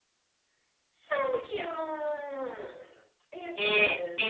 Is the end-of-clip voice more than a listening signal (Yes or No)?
Yes